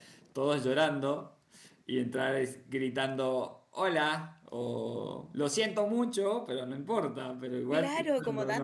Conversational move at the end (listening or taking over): taking over